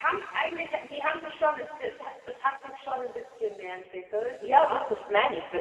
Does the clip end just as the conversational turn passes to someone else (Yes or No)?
Yes